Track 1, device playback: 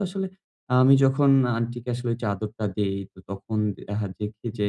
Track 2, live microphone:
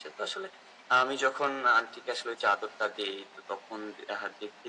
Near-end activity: none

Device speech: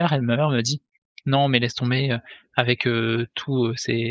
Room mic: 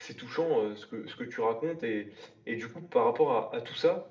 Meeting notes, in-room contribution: present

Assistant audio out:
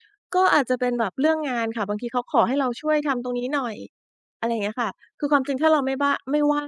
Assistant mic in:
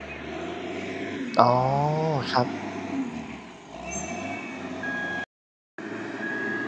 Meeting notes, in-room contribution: present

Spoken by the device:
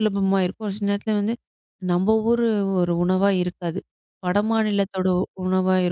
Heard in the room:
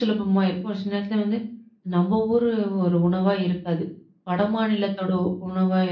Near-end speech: none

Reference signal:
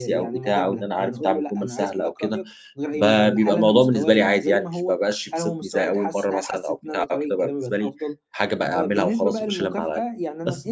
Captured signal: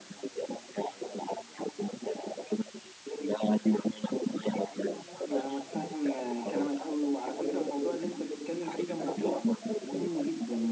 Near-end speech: present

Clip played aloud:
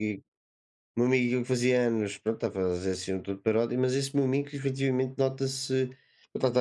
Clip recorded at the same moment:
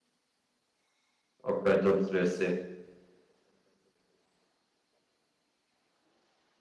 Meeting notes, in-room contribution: present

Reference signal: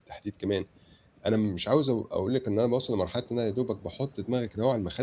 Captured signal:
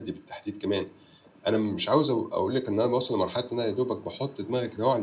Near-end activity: none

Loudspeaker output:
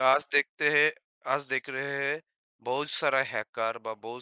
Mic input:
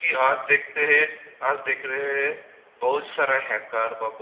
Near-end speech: none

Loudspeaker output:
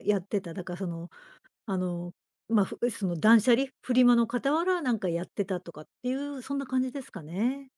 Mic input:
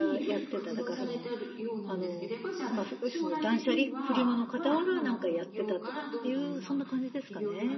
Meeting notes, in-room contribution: present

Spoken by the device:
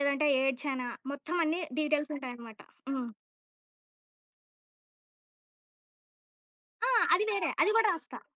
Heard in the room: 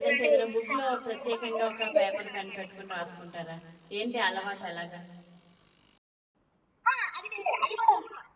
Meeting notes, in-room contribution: present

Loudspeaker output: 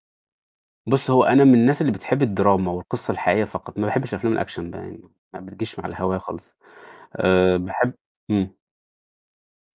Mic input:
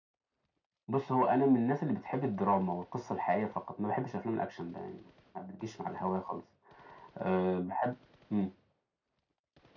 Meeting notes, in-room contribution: none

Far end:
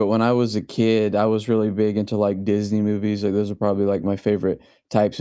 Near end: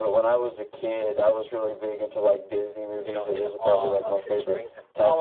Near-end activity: present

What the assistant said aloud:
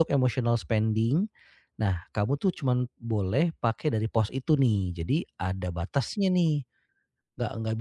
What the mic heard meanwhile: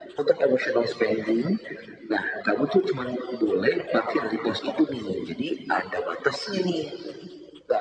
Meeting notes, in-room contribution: none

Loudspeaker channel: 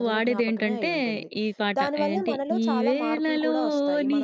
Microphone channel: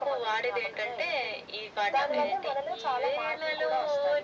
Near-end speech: present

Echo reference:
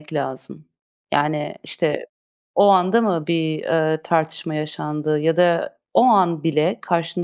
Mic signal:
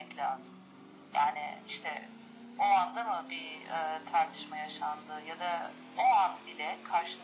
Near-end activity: none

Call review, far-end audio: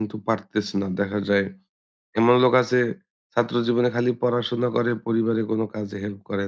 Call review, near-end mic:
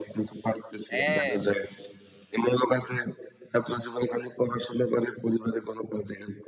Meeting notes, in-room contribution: present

